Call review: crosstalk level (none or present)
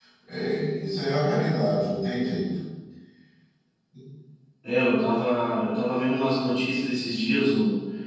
none